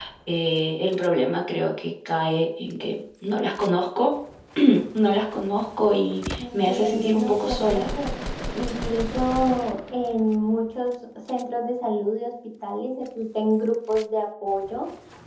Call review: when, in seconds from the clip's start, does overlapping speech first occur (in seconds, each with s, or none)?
6.4 s